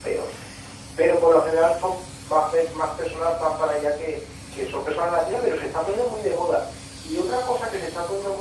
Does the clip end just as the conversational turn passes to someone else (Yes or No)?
No